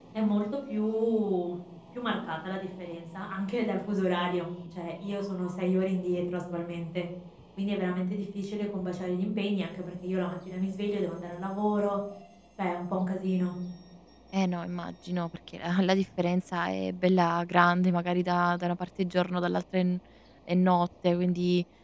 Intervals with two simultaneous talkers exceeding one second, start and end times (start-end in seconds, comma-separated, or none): none